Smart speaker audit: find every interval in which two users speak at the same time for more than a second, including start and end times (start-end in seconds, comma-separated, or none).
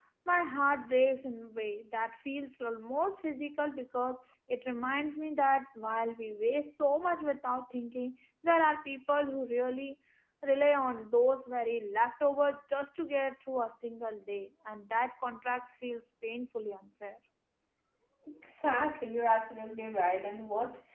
none